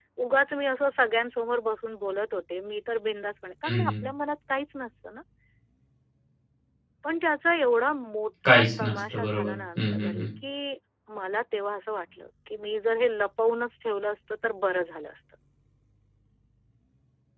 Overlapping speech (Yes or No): Yes